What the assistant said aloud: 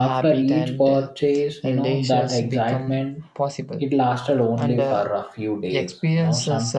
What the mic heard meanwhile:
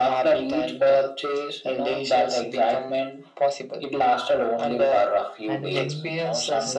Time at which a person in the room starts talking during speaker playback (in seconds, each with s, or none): 5.5 s